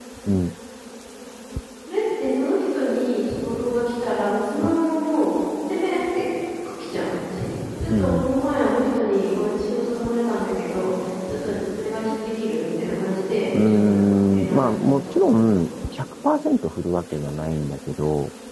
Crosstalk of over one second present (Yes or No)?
Yes